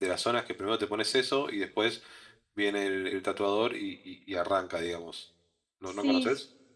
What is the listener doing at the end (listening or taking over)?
taking over